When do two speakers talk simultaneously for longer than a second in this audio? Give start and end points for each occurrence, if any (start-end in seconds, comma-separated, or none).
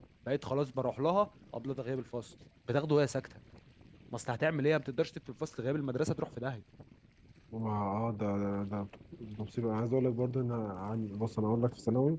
none